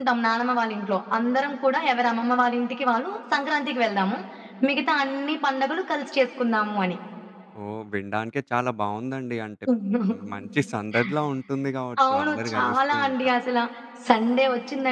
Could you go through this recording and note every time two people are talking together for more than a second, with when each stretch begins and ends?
12.1-13.3

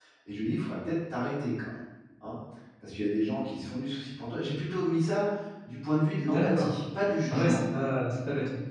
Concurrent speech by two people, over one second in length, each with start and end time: none

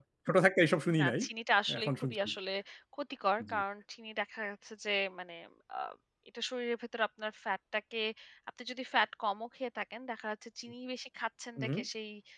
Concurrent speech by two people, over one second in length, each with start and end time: none

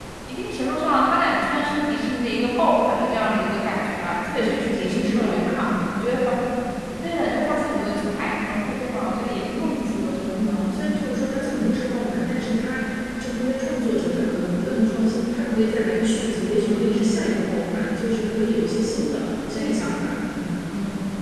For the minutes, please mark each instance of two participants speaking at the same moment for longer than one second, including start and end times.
4.4-5.7

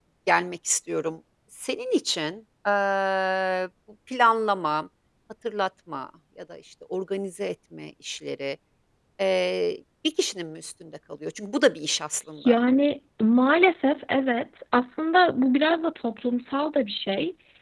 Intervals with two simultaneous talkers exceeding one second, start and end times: none

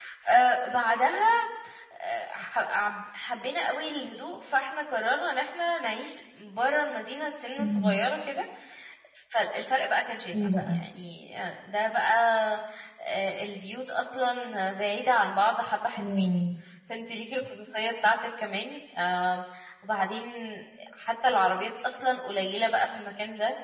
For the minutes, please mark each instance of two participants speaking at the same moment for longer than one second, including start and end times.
none

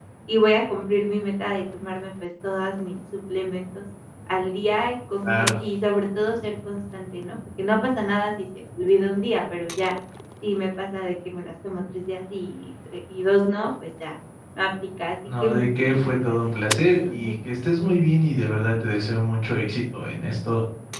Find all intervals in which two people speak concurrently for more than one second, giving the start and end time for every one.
15.4-17.3

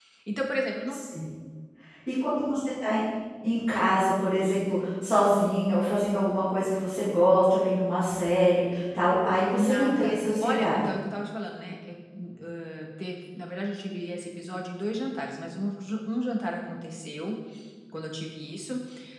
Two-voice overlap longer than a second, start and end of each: 9.6-10.9

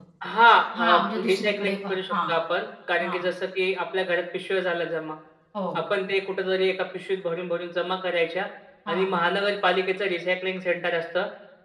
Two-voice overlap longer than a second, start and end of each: 0.8-2.1

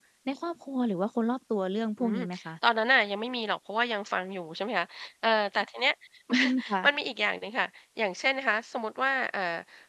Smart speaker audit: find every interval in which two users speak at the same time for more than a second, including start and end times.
none

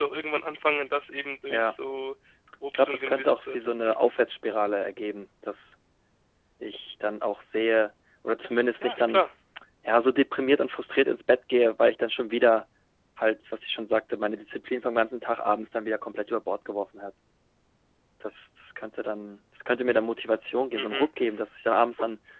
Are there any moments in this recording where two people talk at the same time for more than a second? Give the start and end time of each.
2.7-4.0

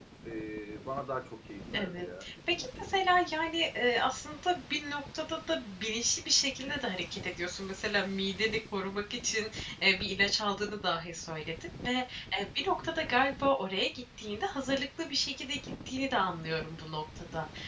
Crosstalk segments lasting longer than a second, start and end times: none

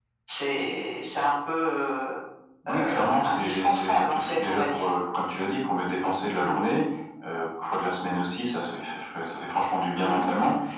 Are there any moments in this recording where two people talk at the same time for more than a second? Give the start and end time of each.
2.7-4.8

